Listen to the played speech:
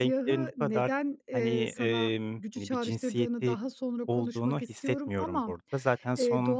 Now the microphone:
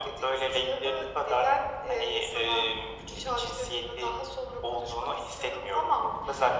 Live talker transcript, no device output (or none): none